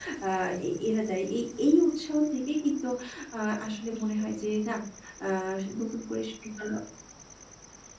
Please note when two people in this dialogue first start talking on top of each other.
none

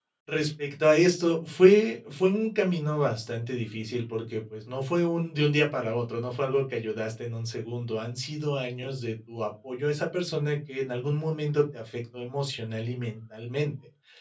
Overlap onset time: none

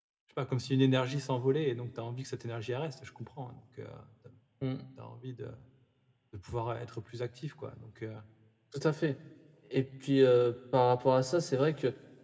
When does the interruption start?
none

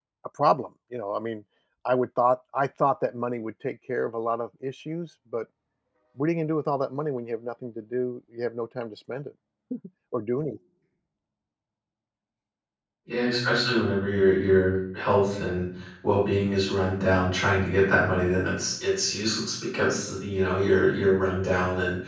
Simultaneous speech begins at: none

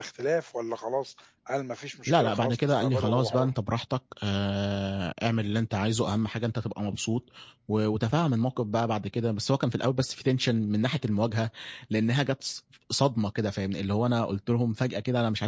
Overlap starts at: 2.1 s

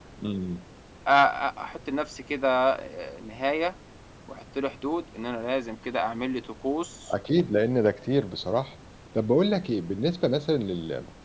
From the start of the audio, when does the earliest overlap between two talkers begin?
none

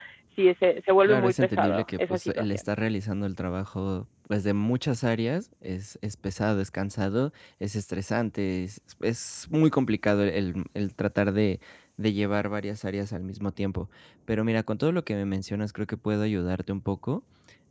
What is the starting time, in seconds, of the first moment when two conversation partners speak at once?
1.1 s

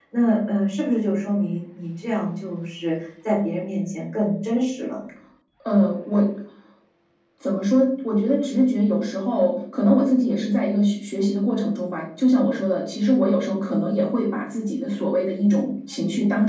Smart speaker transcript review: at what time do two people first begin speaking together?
none

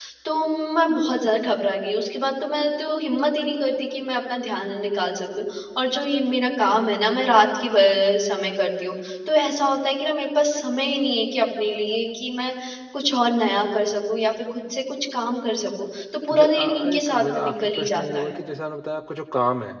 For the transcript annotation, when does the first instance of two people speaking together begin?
16.3 s

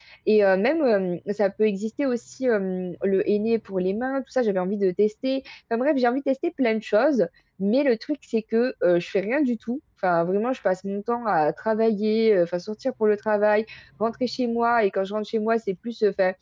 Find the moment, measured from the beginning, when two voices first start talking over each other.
none

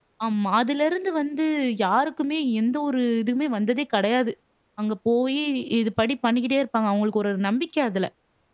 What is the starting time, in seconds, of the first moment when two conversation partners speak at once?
none

